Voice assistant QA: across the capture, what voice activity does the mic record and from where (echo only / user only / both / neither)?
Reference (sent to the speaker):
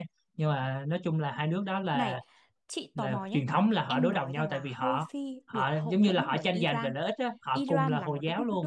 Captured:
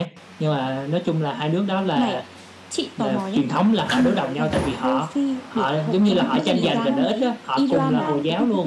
both